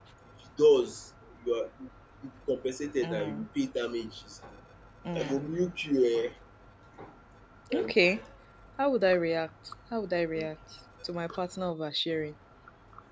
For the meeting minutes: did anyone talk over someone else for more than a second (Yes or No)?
No